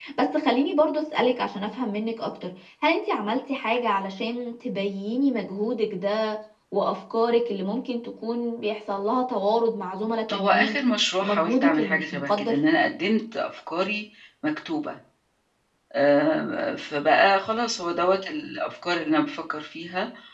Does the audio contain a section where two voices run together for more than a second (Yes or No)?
Yes